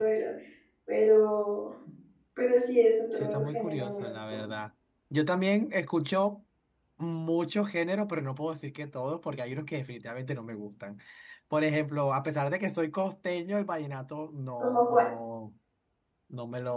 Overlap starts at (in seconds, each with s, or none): 3.2 s